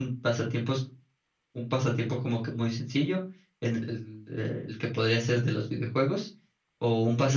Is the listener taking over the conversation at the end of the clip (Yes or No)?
No